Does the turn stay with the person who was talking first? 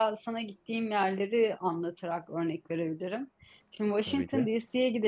Yes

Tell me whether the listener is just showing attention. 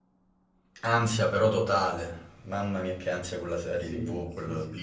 No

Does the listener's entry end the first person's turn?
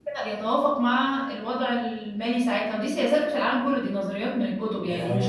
Yes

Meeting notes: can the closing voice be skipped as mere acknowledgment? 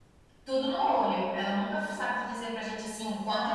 No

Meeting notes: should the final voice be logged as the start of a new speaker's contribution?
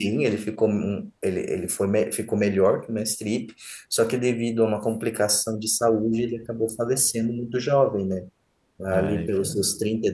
No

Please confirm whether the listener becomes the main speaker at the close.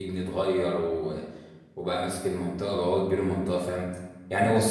No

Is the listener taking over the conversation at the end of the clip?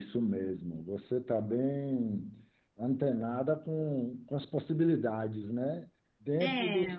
No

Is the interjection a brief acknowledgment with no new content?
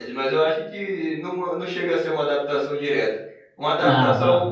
Yes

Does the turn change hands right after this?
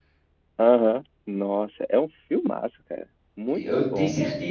Yes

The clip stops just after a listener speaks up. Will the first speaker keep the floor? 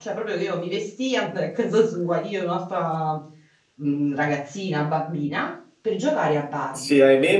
No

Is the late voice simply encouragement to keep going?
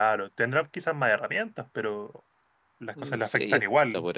No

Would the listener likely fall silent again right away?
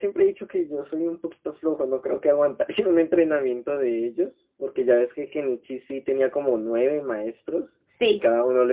Yes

